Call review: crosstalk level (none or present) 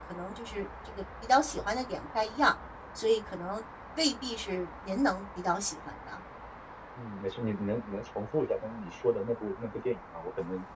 none